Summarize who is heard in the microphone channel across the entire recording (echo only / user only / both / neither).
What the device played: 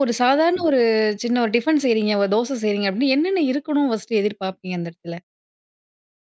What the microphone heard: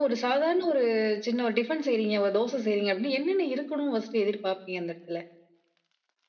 echo only